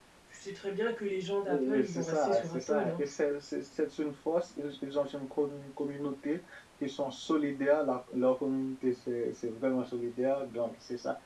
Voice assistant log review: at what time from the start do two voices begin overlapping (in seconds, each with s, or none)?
1.7 s